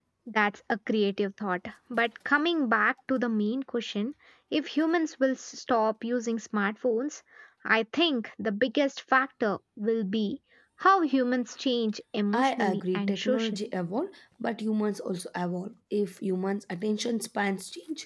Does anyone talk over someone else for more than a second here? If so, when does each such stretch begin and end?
12.3-13.6

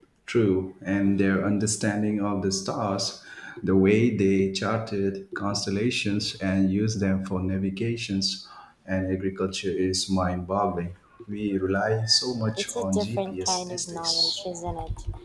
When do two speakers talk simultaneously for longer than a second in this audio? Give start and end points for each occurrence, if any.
12.6-14.4

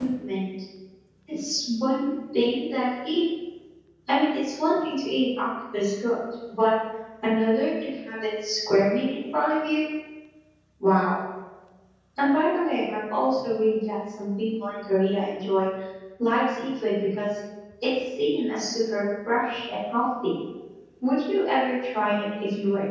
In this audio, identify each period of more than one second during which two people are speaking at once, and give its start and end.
none

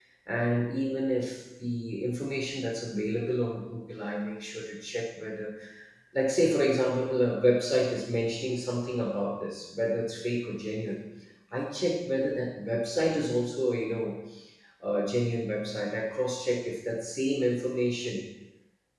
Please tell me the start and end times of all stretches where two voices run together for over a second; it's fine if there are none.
none

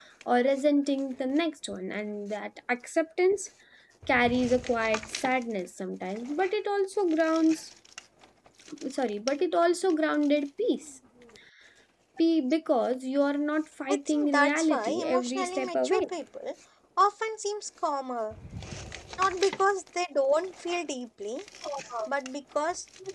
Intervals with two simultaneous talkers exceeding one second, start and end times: 13.9-16.0

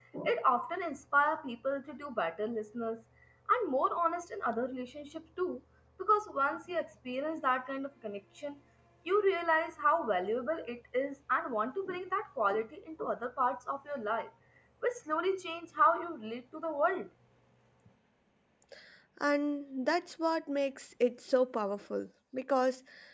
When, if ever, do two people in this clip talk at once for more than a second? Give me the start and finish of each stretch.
none

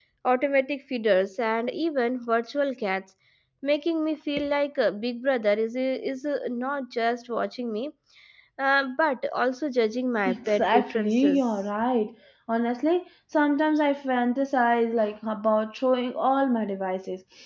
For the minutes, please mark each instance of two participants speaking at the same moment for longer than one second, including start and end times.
10.3-11.6

